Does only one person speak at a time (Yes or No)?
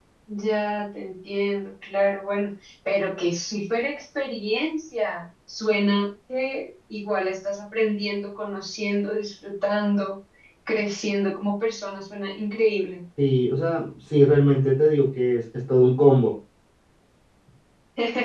Yes